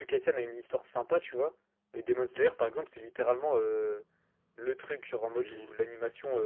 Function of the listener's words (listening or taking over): listening